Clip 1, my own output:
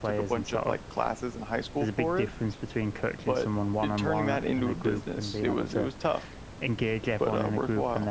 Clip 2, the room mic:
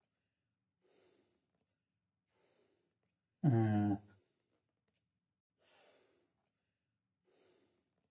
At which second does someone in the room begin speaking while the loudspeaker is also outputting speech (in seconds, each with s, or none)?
3.4 s